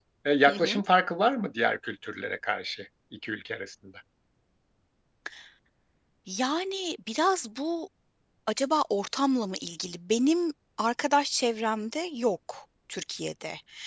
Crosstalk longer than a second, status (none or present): none